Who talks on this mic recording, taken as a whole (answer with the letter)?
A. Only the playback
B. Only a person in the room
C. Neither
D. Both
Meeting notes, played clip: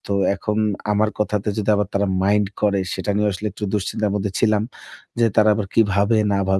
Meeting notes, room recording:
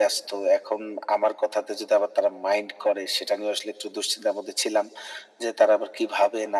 A